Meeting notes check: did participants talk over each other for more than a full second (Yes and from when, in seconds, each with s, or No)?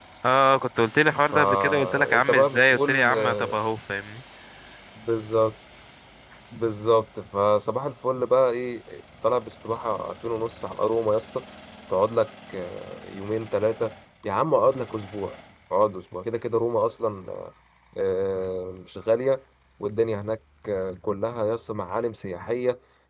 Yes, from 1.3 s